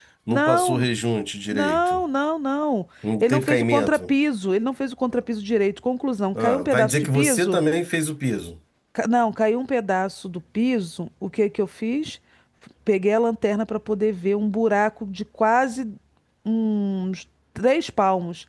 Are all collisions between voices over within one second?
No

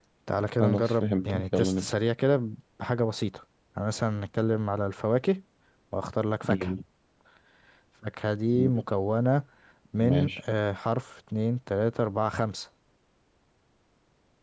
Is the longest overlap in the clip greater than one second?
Yes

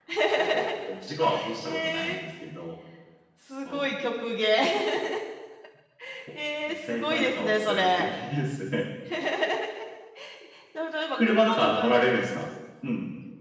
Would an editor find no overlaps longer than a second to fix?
No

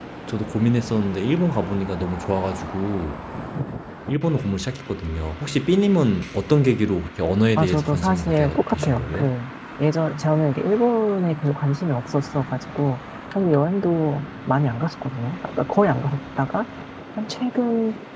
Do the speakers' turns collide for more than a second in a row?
Yes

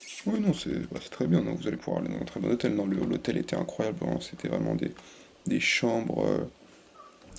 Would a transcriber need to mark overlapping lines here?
No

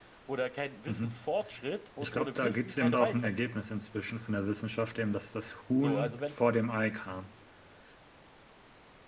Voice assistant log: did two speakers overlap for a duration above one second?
Yes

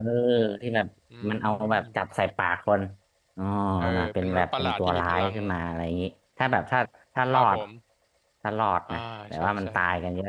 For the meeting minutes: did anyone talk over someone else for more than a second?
Yes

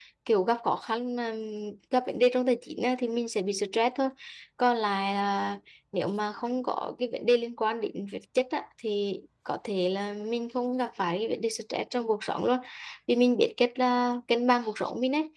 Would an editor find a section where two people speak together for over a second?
No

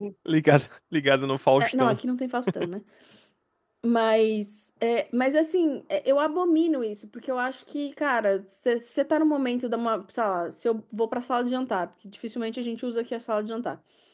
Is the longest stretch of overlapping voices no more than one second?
Yes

